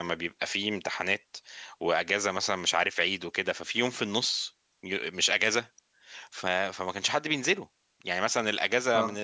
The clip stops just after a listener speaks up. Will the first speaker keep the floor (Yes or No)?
Yes